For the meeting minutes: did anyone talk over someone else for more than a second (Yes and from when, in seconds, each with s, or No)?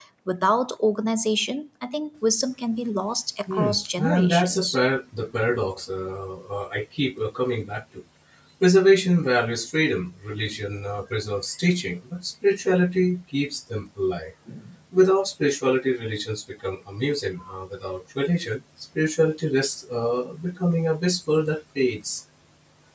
Yes, from 3.5 s